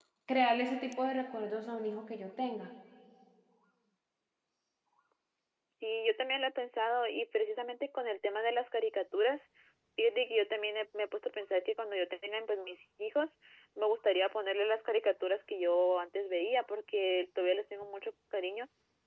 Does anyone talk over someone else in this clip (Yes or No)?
No